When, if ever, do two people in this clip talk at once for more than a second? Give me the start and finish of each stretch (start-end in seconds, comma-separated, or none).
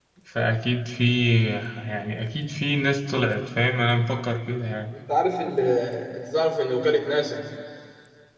none